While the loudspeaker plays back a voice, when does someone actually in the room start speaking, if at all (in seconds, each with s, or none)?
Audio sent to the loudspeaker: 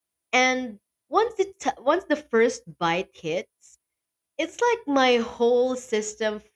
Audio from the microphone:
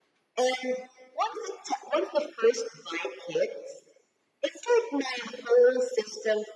none